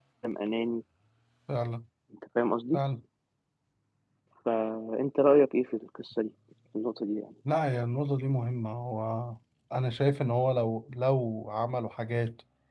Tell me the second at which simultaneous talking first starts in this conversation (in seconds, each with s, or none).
none